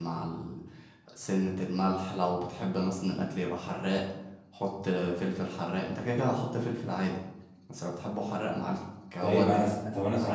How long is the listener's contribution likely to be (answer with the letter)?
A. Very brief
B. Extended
B